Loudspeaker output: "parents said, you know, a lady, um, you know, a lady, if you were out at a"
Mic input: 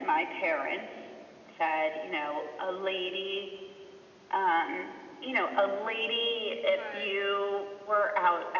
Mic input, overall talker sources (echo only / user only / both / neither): both